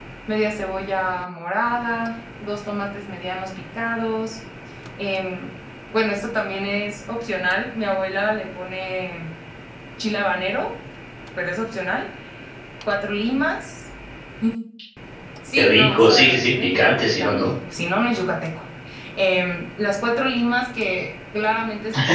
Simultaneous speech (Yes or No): Yes